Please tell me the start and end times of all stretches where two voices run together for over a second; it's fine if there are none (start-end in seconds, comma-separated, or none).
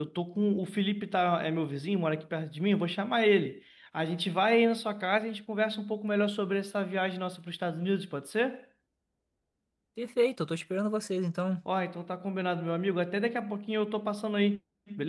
none